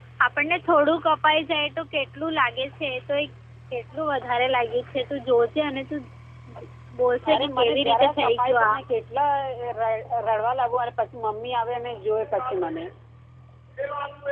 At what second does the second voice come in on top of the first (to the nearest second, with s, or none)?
7 s